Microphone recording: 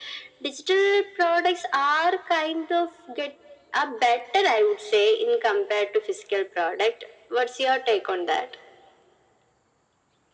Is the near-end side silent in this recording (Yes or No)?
Yes